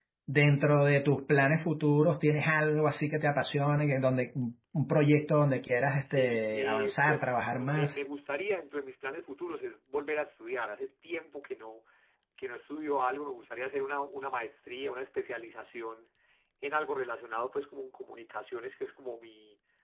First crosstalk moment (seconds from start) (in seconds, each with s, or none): 6.1 s